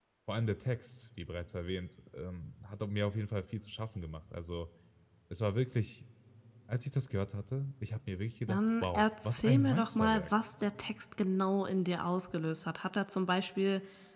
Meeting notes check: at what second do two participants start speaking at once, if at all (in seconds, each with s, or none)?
8.5 s